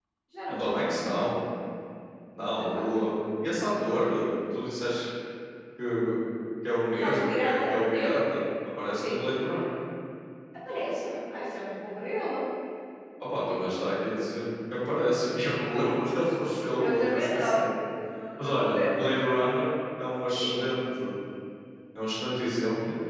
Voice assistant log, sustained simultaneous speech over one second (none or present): present